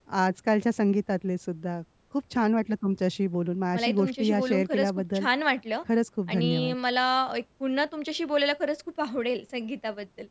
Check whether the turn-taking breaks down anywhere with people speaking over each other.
Yes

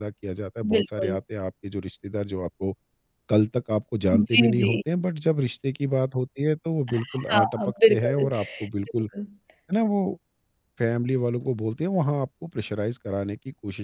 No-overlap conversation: No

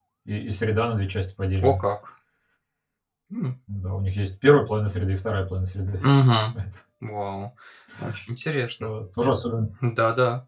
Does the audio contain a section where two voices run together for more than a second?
No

